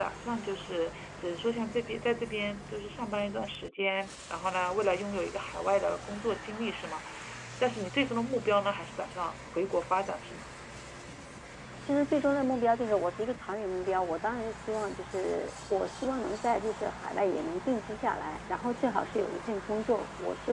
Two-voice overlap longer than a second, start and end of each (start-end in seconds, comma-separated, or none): none